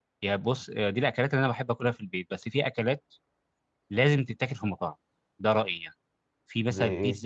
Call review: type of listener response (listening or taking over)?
listening